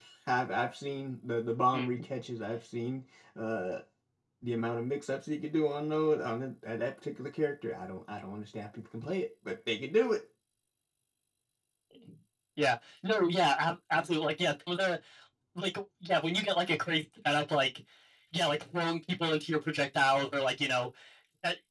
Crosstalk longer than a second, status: none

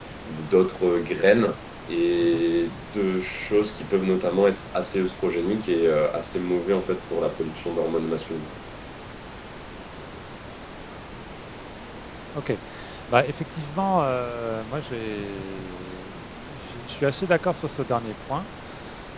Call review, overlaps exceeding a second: none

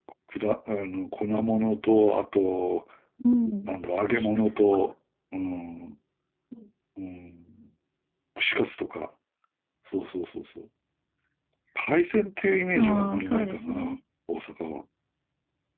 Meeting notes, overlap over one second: present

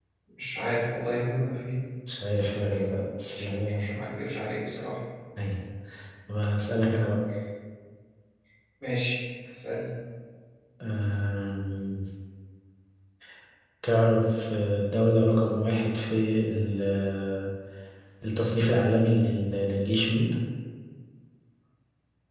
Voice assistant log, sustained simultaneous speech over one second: none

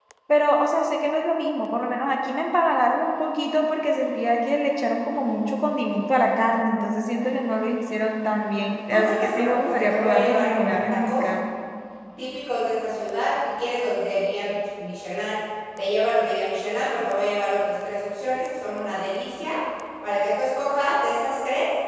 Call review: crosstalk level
present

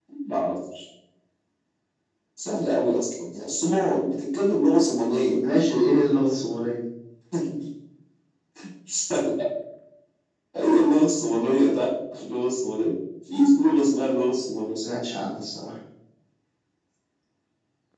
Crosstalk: none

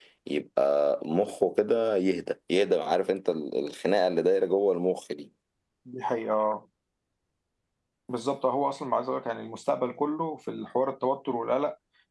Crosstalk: none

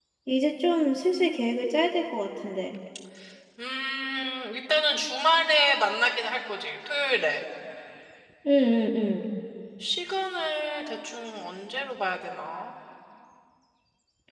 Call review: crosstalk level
none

